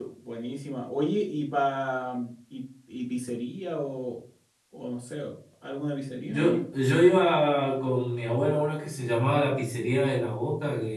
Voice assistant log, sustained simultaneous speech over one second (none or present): none